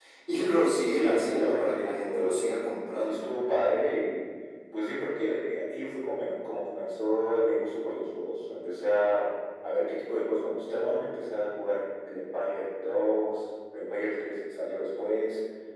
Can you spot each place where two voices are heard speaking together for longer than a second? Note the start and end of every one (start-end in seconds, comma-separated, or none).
0.9-2.4